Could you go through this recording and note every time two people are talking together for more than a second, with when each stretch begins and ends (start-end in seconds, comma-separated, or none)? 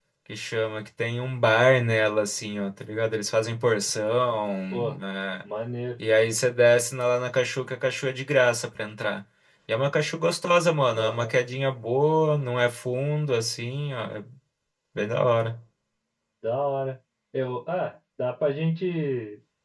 none